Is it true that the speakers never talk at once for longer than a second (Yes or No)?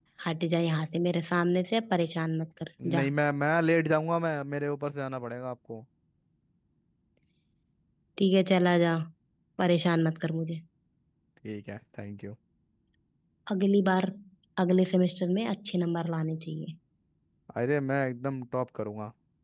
Yes